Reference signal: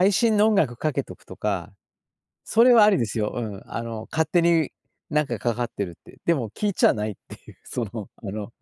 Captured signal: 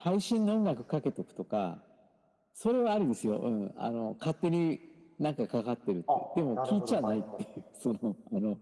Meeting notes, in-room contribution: present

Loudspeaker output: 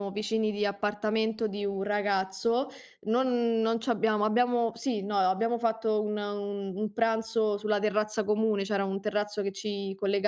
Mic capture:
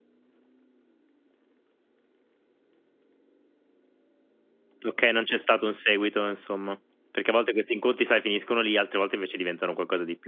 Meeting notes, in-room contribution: present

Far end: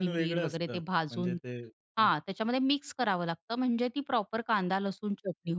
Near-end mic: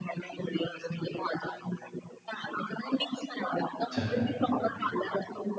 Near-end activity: present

